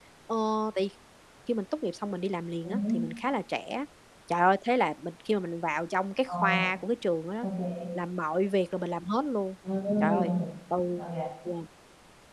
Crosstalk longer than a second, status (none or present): none